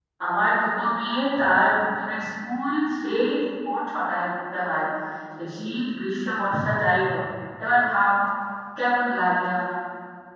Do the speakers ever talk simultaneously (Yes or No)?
No